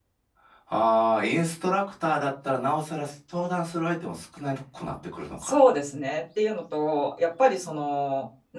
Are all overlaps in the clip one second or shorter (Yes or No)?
Yes